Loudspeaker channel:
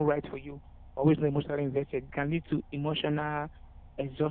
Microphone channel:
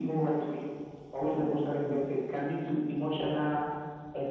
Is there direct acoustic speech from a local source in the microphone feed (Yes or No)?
No